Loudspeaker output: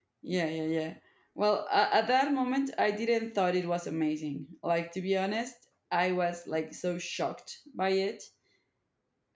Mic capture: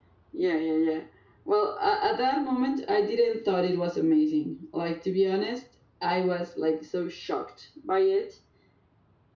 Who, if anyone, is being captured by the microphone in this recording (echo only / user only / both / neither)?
echo only